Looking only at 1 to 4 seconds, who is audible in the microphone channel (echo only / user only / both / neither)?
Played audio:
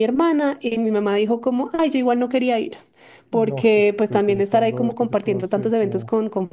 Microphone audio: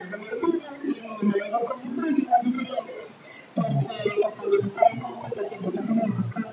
echo only